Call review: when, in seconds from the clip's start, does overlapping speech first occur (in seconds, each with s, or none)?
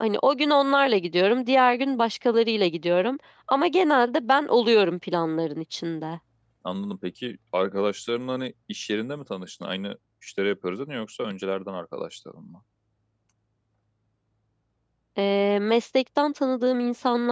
none